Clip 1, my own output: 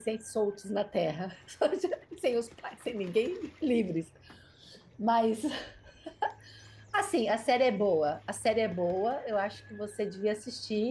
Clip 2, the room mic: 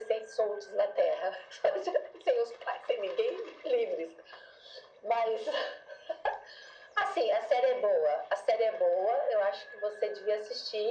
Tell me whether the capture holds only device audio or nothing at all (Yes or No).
Yes